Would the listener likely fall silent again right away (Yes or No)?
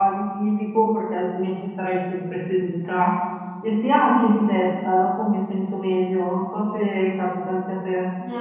No